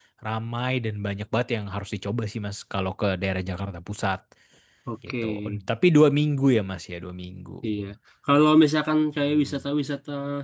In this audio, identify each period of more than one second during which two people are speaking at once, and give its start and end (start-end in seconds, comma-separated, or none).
none